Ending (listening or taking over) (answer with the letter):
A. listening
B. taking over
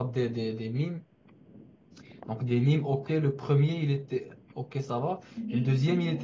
A